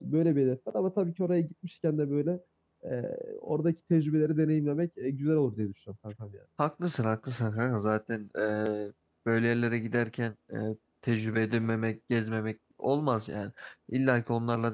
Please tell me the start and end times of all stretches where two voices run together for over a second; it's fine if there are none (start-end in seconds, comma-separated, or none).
none